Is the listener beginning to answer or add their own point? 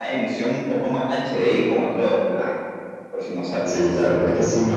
Yes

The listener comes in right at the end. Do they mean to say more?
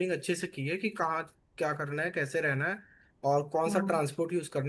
No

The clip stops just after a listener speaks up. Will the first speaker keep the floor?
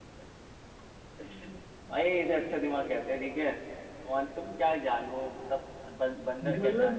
No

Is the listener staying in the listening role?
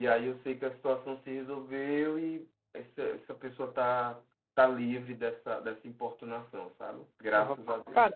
No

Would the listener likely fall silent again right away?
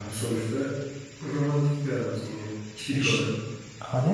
No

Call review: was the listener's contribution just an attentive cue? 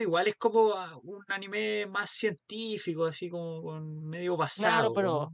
No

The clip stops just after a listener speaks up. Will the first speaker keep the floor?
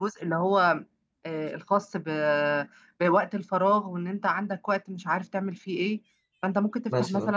Yes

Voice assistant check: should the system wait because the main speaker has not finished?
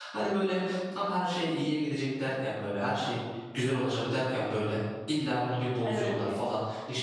Yes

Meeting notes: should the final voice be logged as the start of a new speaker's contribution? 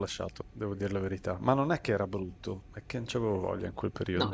Yes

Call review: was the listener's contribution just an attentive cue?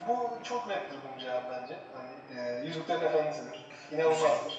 No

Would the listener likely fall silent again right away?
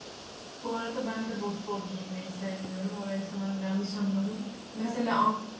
Yes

